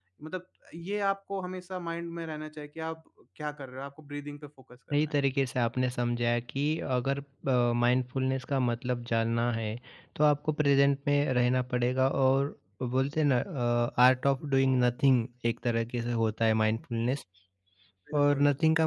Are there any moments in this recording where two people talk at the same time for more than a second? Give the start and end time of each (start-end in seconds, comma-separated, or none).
none